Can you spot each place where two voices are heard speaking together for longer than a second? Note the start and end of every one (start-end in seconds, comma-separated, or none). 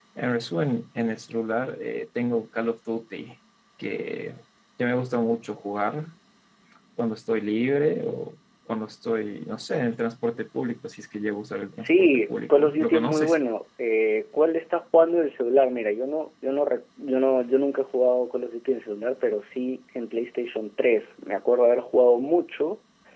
11.8-13.4